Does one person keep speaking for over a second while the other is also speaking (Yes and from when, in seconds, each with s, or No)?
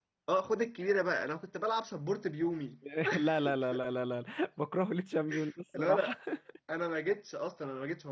No